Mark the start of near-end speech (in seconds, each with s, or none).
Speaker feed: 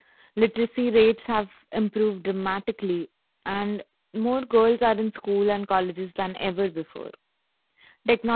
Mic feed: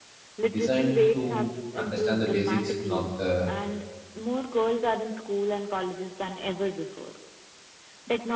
0.5 s